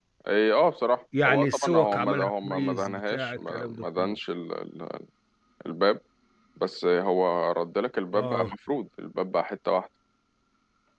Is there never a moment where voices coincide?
No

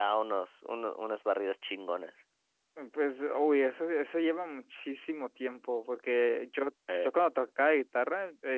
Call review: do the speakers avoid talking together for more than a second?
Yes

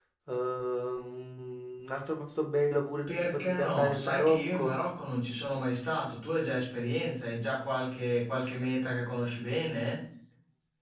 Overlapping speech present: Yes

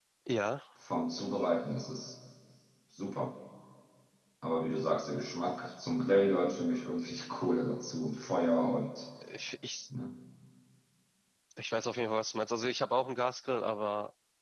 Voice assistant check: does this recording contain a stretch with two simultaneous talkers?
No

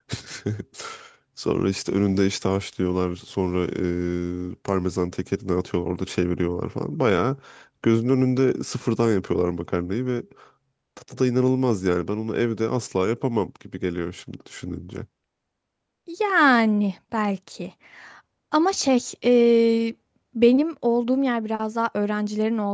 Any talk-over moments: No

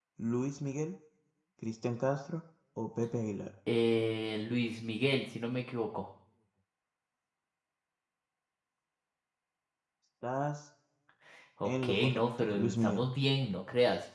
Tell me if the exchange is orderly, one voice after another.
No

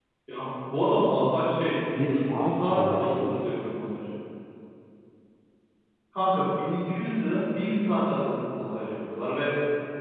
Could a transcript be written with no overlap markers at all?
No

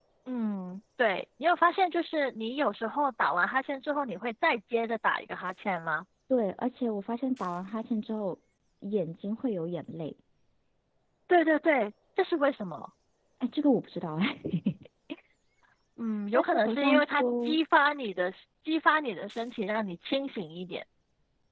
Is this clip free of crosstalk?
No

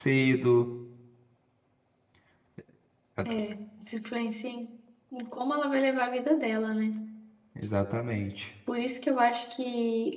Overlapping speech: No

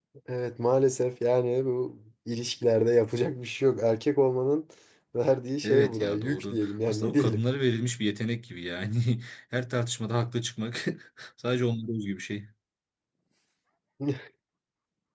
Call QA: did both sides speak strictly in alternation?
No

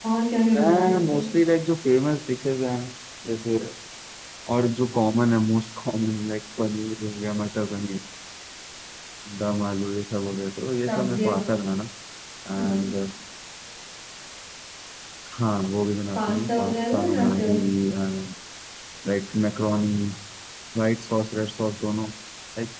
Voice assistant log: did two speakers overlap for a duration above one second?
Yes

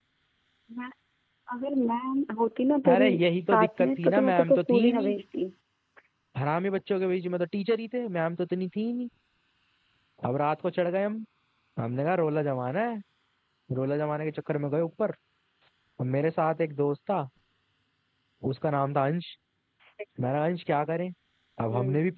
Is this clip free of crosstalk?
No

